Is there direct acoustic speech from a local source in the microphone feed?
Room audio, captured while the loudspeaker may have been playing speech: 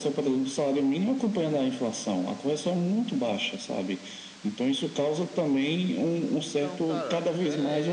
Yes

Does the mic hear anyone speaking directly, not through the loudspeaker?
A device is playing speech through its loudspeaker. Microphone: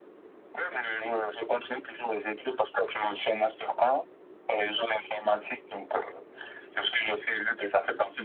No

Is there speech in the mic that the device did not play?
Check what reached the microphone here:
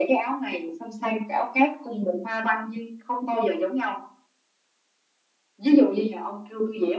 No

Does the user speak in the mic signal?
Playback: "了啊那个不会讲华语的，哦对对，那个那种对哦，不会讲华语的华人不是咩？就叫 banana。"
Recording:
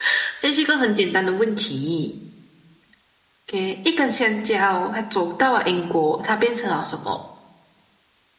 Yes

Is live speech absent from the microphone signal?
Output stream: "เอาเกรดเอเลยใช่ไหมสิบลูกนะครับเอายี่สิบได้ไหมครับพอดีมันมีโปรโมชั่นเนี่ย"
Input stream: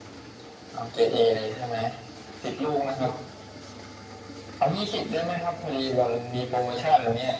Yes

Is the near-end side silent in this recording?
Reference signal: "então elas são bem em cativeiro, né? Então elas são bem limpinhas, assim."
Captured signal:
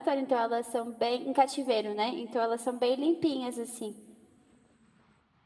Yes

